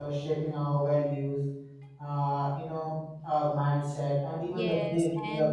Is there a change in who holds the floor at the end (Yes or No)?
Yes